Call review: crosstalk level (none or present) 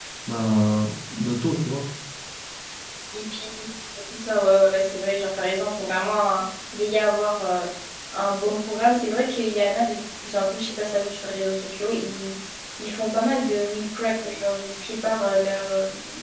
none